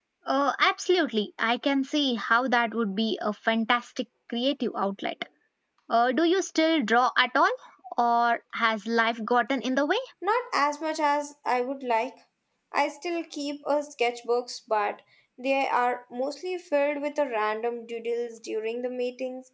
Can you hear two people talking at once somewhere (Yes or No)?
No